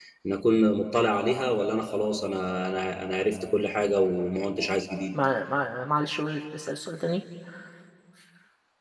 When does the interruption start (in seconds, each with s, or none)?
none